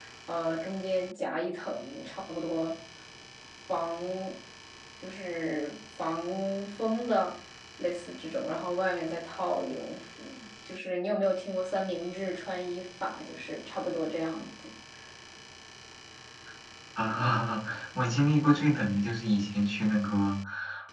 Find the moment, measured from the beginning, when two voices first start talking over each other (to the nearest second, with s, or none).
none